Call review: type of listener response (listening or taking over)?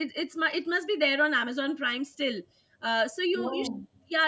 listening